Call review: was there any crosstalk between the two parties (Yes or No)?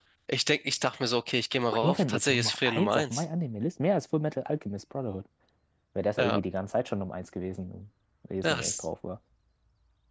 Yes